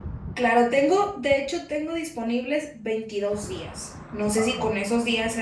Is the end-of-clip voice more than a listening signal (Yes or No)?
No